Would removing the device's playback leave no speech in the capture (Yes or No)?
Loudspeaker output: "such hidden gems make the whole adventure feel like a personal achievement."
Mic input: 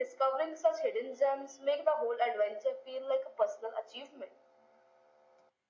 Yes